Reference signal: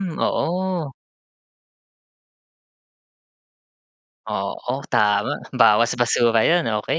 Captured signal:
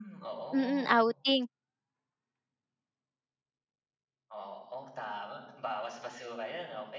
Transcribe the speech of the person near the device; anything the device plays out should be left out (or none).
mm, outing.